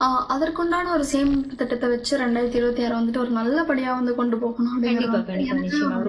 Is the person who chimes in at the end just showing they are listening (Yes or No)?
No